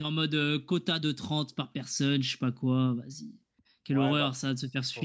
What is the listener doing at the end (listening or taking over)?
taking over